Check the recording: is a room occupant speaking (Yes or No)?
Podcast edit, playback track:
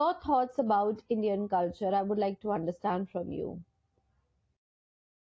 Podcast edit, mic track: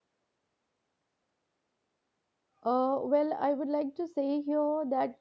Yes